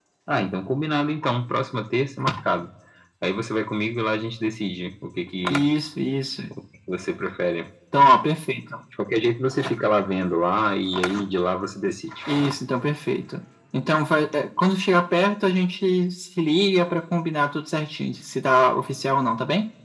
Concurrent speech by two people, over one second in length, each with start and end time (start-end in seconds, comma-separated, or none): none